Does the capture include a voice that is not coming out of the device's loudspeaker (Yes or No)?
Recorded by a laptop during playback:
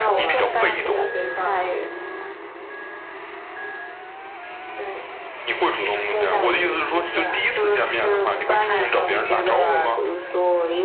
Yes